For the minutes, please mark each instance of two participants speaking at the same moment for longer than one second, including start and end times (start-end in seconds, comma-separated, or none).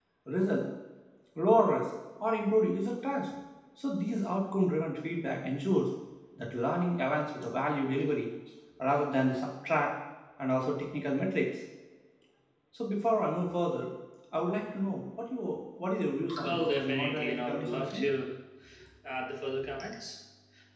16.4-18.1